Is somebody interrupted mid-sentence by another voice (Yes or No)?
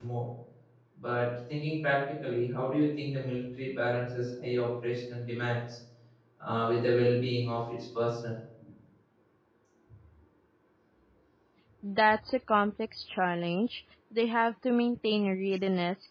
No